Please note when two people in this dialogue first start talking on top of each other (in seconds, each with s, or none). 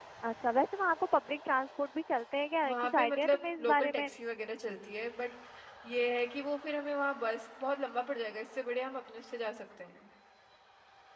2.6 s